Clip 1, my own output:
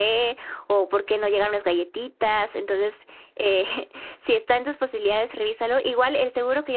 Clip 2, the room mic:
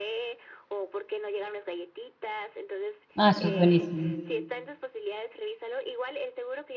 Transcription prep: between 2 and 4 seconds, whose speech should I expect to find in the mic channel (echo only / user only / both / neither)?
both